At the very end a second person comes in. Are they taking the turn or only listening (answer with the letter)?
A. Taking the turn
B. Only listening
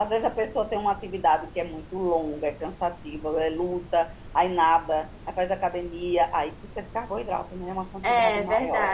A